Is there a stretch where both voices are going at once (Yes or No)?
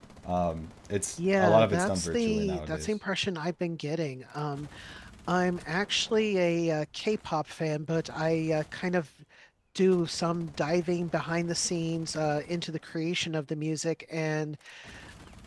Yes